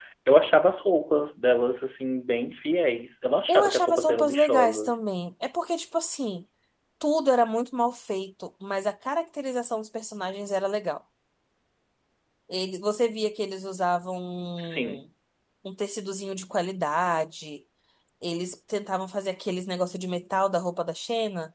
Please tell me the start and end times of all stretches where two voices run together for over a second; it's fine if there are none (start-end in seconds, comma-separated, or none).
3.5-5.0